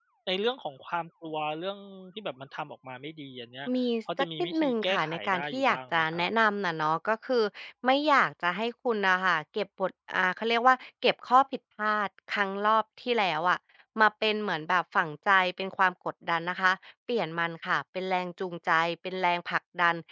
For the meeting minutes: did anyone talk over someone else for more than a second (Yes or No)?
Yes